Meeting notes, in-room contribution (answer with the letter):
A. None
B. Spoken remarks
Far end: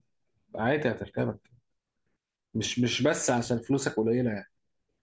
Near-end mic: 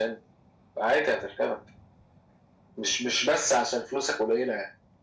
A